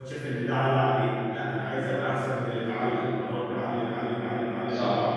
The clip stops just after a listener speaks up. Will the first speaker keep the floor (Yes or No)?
No